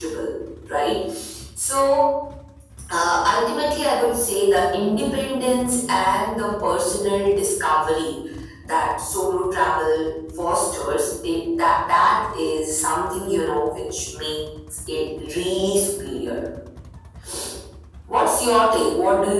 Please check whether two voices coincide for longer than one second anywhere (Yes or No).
No